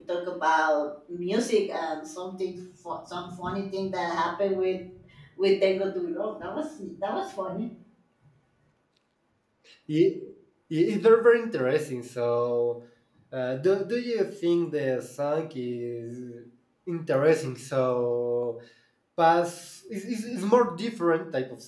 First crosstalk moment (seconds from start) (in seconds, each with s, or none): none